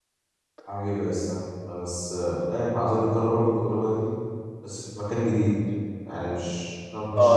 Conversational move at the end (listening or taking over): taking over